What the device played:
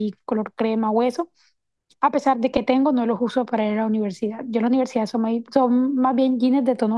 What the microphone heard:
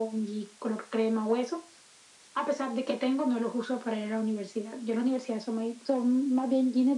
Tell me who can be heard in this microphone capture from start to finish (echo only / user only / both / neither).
echo only